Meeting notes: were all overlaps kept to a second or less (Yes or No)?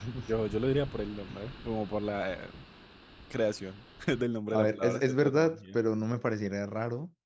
No